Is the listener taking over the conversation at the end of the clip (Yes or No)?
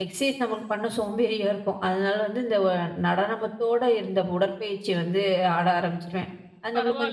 Yes